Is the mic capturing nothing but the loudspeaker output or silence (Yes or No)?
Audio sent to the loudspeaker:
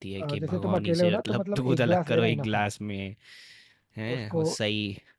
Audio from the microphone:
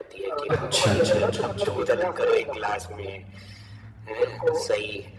No